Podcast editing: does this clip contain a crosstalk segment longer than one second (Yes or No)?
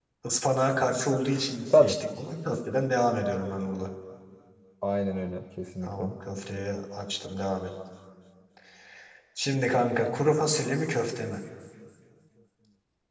No